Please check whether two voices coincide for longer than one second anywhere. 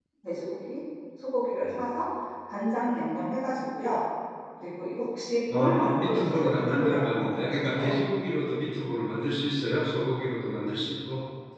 Yes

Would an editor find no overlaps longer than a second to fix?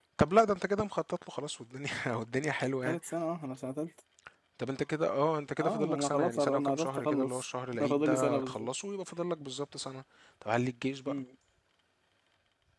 No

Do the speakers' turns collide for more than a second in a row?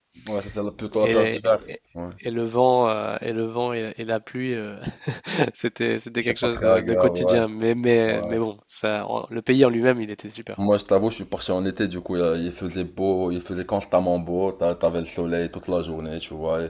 Yes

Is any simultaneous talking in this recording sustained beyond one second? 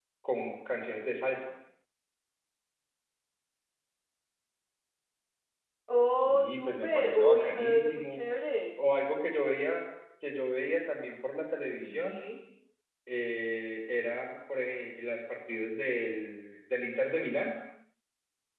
Yes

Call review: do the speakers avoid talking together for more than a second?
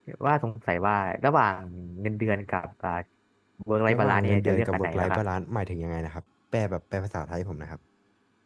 No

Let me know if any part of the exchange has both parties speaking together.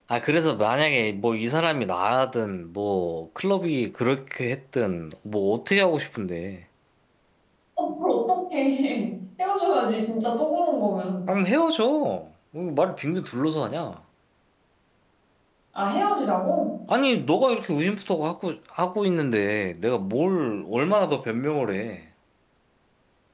No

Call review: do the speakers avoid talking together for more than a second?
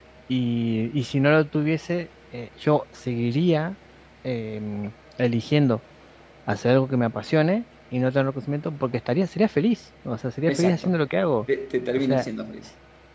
Yes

